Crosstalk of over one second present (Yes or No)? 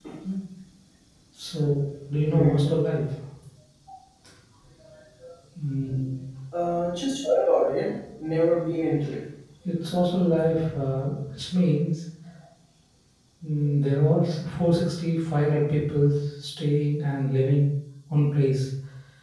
No